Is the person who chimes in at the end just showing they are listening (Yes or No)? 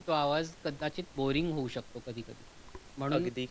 Yes